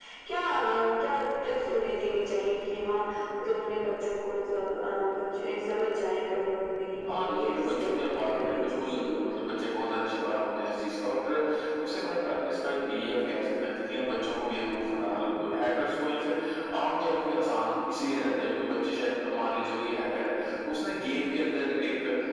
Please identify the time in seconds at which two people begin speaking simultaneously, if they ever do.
7 s

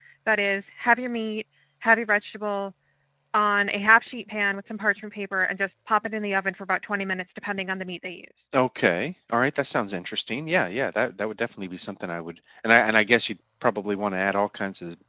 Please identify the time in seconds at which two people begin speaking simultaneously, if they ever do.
none

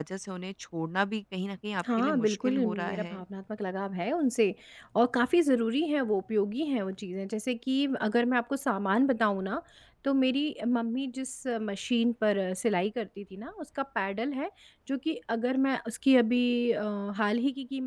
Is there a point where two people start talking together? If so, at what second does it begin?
2 s

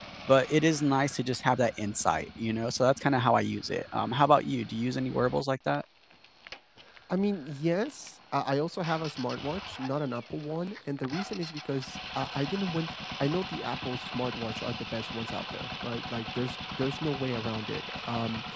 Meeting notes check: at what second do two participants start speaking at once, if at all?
none

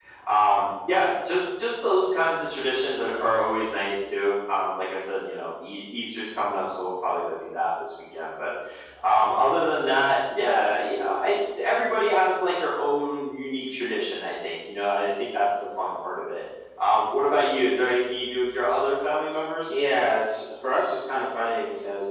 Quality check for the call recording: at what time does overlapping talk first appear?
none

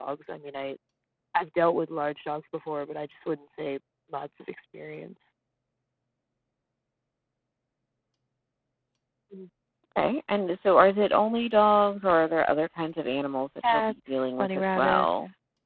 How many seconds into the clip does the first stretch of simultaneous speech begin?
14 s

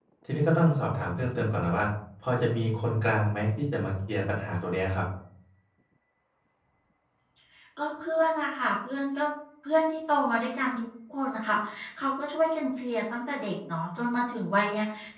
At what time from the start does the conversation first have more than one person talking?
none

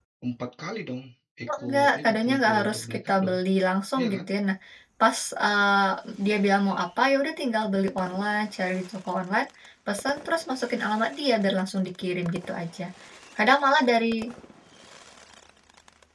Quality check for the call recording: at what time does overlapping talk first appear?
1 s

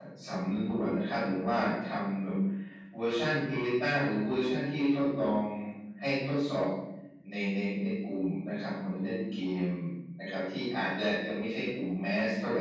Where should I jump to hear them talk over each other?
none

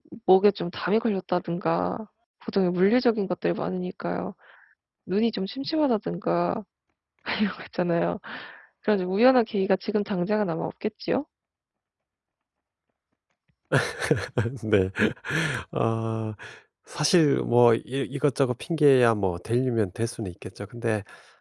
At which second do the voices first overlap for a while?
none

